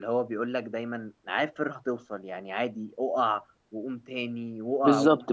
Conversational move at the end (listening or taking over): taking over